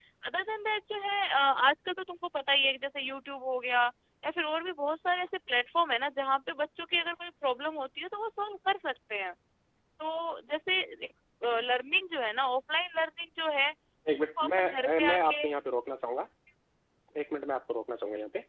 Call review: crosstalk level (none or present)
present